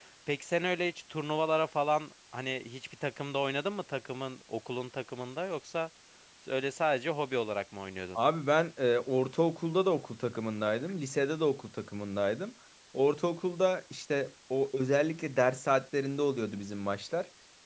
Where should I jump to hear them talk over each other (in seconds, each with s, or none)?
none